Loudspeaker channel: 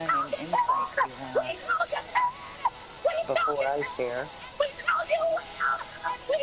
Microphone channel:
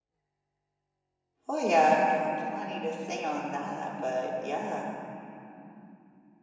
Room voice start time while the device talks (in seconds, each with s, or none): 1.5 s